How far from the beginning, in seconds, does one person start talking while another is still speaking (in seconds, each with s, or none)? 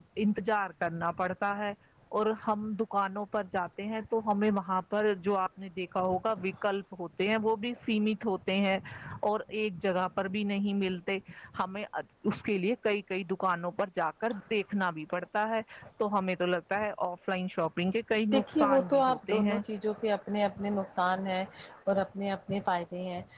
18.3 s